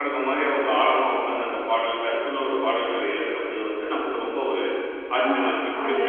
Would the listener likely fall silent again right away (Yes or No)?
No